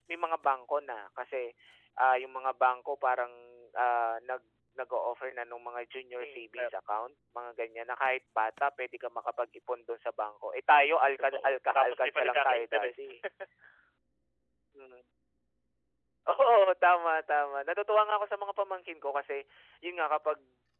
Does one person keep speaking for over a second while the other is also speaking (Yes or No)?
Yes